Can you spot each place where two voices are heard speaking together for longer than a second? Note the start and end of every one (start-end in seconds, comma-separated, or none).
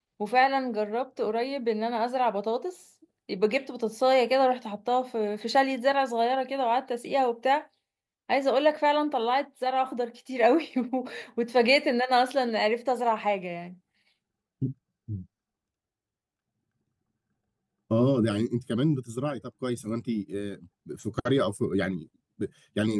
none